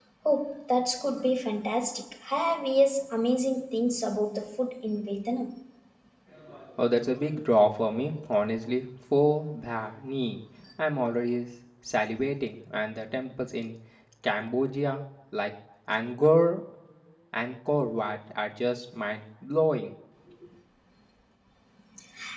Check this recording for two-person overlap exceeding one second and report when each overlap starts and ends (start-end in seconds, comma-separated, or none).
none